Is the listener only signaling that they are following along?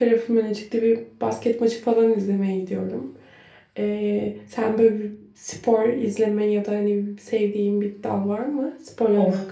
No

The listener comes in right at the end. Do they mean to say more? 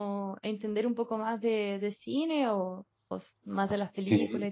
Yes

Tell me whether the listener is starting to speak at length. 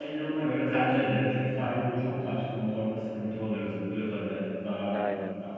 Yes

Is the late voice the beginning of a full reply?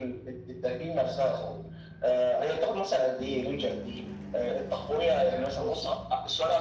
No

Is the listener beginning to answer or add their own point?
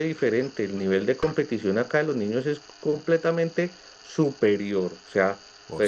No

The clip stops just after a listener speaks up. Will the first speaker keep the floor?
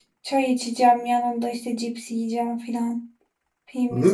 No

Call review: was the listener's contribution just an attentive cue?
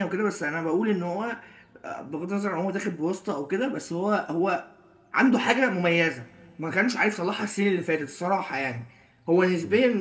Yes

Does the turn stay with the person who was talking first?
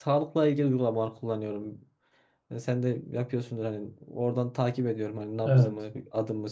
Yes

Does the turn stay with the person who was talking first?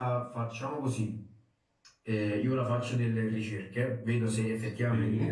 Yes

